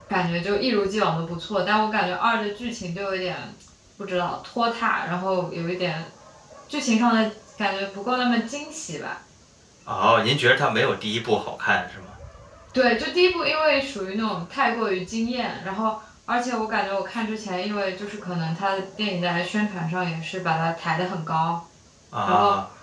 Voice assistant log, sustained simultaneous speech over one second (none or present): none